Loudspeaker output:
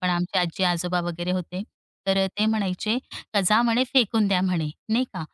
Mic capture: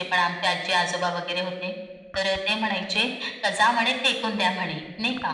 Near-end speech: none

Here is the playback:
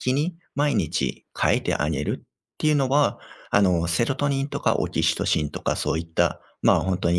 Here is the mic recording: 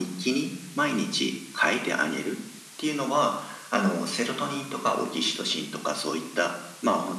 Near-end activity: none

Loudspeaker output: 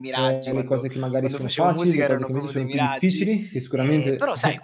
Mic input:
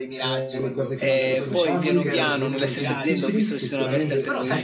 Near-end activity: present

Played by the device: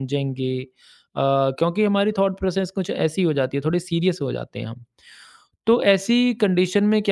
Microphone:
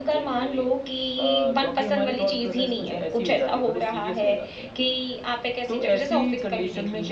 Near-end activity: present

